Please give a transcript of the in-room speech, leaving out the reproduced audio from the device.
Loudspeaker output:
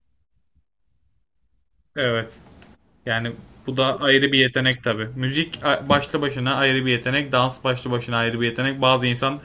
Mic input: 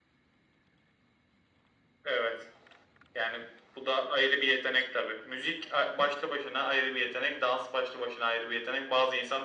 none

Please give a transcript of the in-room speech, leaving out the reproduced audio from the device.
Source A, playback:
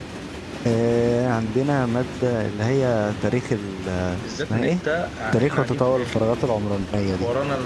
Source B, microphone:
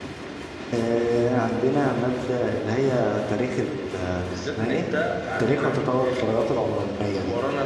none

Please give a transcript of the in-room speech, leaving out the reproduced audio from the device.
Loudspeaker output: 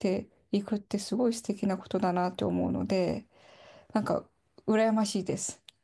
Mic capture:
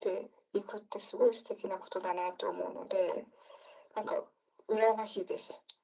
none

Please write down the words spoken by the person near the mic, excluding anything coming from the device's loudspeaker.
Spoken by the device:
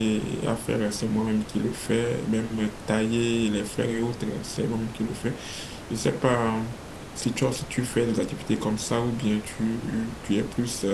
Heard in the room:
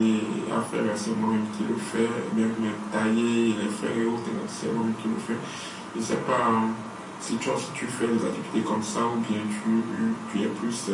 none

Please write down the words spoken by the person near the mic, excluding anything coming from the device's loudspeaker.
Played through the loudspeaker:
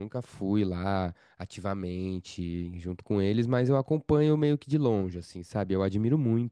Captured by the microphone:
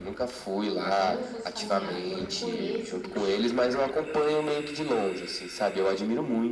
para quando eu fosse caminhar eu recolher esse lixo.

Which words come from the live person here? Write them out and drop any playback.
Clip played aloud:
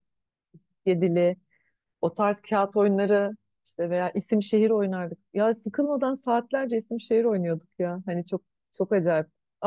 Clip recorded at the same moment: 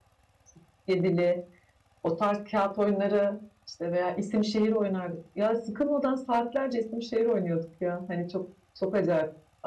none

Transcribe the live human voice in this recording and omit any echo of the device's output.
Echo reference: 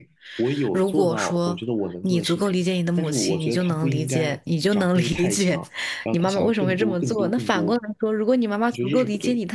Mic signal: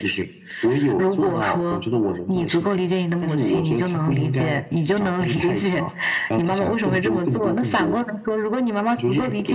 none

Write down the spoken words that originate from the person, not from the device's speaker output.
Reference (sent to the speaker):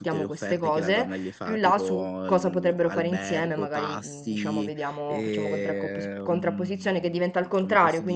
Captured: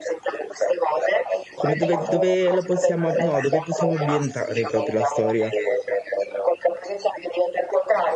Come dove, dove la possiamo, no, dove possiamo ambientare proprio la storia?

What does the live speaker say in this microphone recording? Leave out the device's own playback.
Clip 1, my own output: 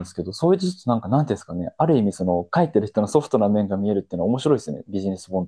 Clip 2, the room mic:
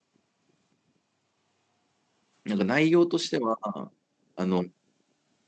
なんか内容としては、あの、

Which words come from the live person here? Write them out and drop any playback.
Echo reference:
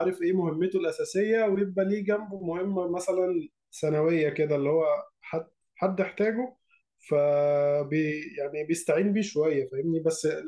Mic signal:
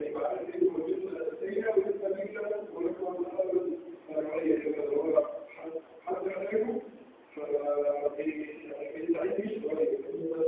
none

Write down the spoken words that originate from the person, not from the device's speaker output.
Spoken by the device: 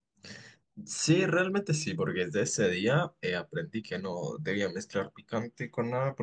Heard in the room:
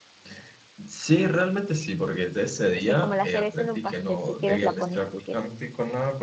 o sea como la cereza en un pastel, si quieres la pones, y si quieres.

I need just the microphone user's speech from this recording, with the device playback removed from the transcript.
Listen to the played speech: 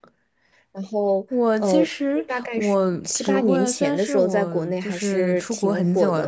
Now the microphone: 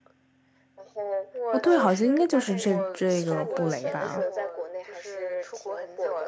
哦，对，好像应该就是这这个布雷吧。

